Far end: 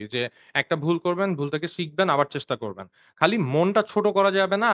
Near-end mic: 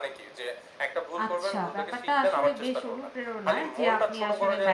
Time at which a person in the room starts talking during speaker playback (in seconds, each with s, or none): 1.2 s